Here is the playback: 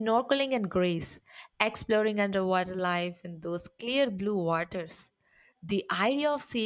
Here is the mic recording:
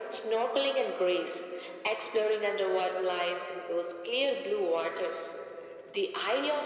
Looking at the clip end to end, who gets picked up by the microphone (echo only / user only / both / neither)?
echo only